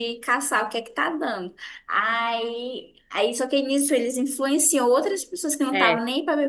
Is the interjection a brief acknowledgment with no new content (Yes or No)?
Yes